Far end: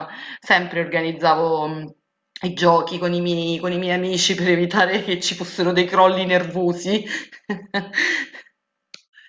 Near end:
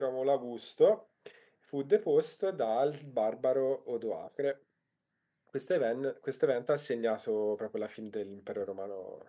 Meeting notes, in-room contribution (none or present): present